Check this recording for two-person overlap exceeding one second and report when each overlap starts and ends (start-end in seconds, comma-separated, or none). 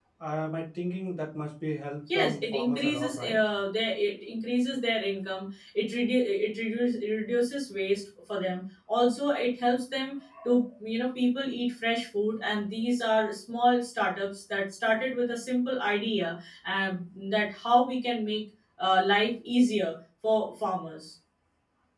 2.1-3.4